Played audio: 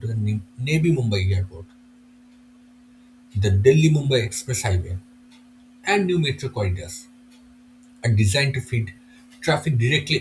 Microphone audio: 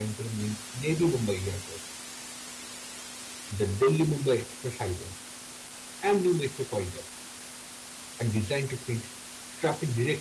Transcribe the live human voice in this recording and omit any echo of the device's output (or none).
none